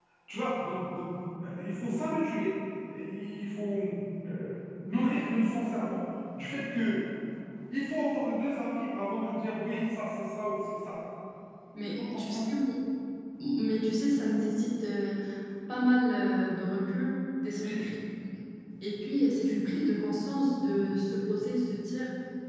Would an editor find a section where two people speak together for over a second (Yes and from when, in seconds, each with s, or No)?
No